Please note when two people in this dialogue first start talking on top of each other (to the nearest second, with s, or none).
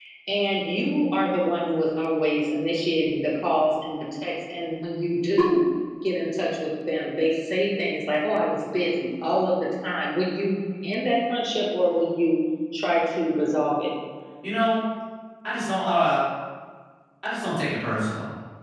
none